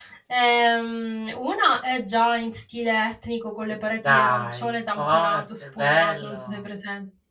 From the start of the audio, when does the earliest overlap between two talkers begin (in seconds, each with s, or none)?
4.0 s